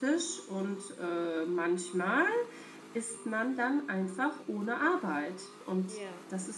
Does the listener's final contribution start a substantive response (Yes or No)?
No